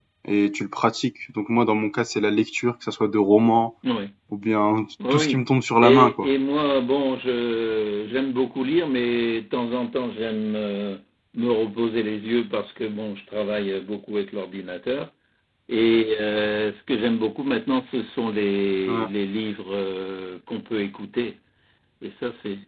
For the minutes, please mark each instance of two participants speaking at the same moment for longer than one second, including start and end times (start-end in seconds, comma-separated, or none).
none